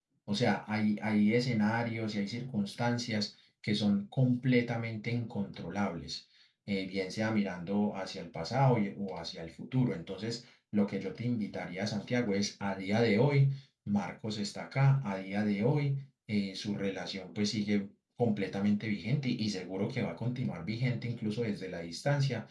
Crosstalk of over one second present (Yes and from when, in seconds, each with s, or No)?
No